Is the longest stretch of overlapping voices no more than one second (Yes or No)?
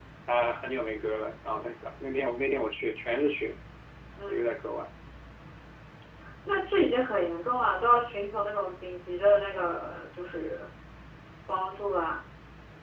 Yes